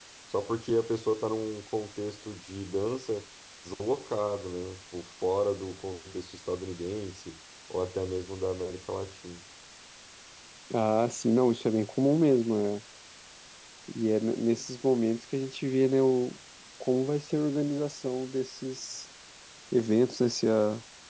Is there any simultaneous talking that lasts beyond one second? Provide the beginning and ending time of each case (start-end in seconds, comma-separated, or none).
none